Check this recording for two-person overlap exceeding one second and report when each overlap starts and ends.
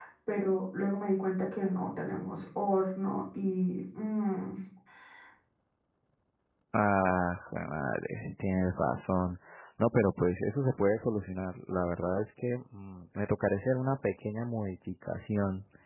none

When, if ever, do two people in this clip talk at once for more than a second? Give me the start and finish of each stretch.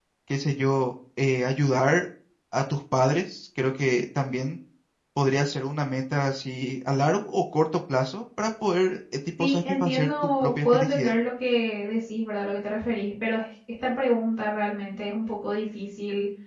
9.4-11.1

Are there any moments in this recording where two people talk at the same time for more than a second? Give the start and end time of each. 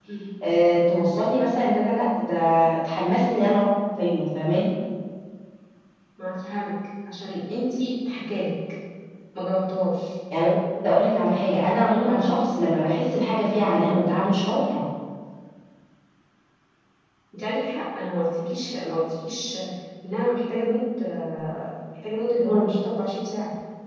none

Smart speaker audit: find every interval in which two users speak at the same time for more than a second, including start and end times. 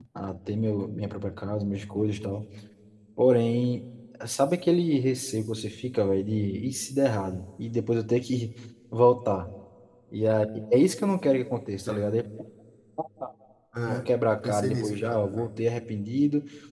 13.9-15.5

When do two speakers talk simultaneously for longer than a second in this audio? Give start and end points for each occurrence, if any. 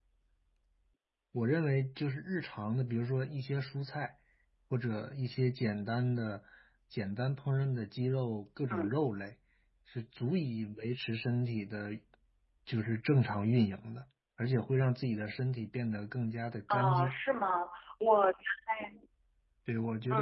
none

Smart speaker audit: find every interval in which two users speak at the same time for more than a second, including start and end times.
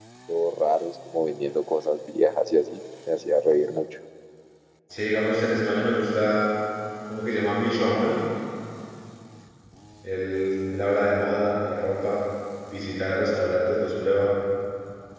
none

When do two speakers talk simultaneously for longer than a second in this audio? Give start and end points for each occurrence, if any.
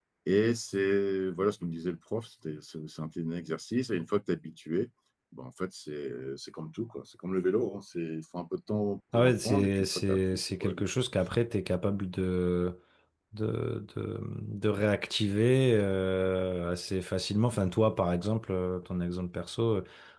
9.1-10.9

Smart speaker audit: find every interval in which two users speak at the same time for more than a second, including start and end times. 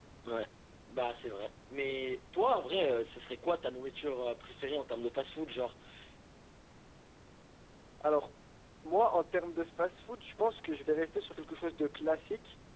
none

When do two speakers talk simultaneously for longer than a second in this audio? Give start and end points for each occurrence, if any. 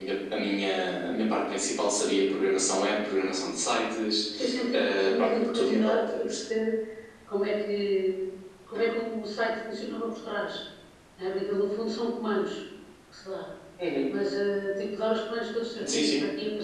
4.7-6.4

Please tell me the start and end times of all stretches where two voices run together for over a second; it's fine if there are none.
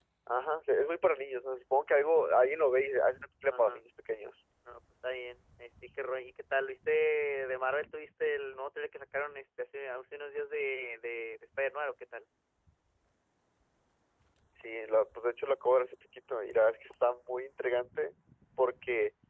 none

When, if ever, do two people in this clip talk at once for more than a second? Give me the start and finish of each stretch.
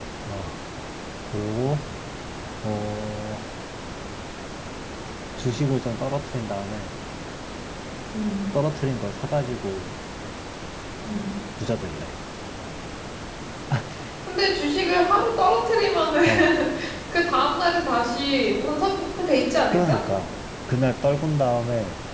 none

